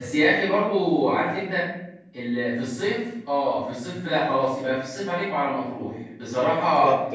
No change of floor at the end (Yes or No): Yes